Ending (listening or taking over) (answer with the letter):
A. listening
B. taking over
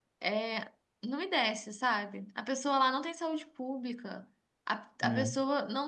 A